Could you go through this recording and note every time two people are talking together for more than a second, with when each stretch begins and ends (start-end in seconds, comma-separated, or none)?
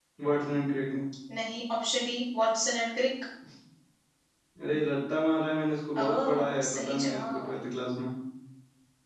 6.0-7.5